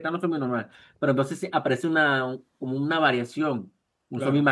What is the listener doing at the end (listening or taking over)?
listening